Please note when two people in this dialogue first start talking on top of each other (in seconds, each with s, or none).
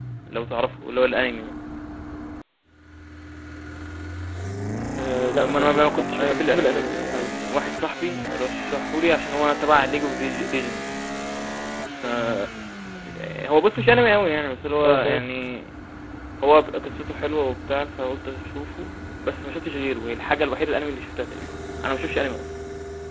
5.4 s